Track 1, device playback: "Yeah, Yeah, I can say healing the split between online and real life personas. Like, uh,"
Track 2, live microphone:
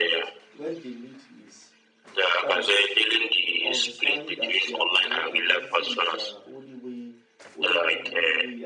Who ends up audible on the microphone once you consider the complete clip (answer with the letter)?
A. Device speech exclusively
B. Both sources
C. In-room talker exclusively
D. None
B